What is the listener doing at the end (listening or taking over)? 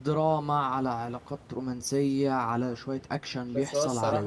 taking over